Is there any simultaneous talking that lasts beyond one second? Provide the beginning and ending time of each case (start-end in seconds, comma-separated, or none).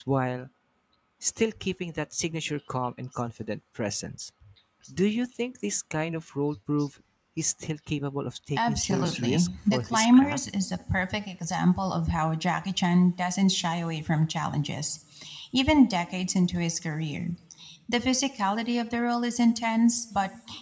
8.6-10.4